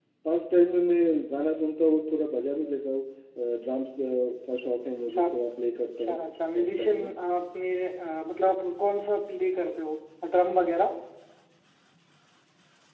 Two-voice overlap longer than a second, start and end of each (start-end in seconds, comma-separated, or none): none